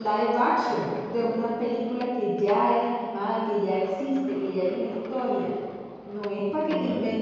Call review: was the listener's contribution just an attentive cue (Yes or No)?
Yes